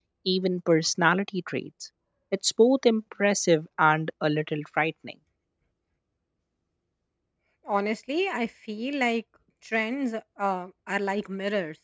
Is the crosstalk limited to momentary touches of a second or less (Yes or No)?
Yes